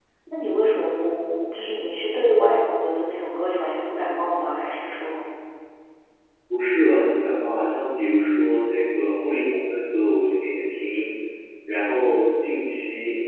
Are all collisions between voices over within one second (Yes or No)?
Yes